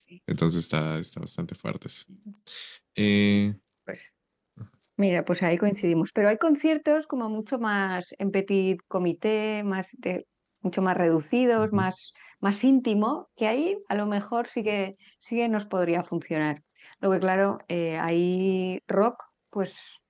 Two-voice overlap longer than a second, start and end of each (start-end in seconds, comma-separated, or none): none